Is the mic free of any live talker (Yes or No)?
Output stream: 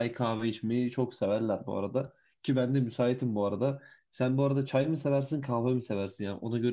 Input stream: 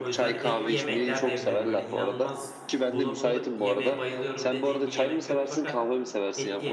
No